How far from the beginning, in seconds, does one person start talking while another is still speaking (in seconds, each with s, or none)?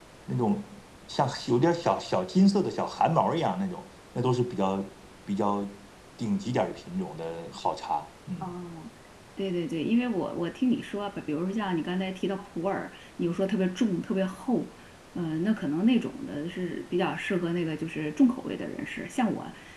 none